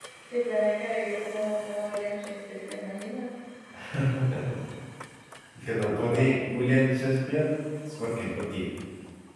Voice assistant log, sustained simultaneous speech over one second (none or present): none